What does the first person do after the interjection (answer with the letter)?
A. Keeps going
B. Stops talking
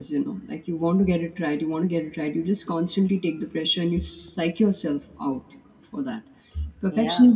A